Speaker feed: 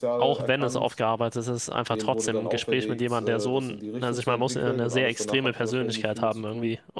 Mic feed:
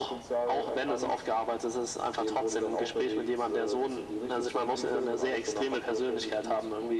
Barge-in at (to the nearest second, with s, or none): none